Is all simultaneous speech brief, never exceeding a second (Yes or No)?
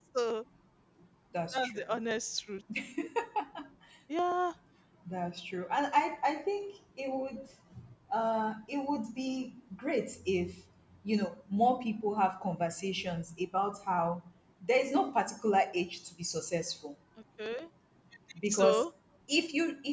Yes